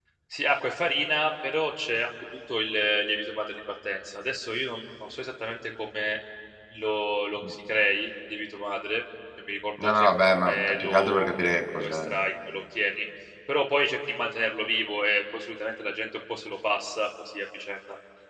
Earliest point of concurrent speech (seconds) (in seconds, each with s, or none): 9.8 s